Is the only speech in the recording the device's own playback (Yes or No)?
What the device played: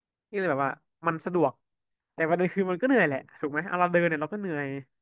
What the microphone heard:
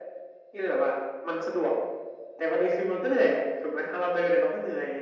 Yes